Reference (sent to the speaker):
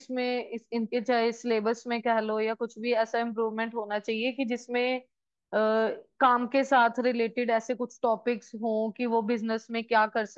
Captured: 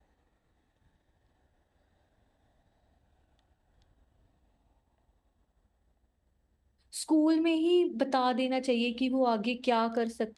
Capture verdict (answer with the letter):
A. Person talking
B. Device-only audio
A